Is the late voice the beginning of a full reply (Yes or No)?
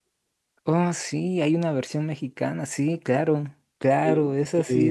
Yes